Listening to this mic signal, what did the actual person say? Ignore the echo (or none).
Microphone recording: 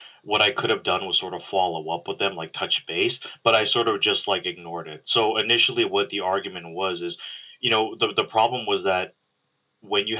none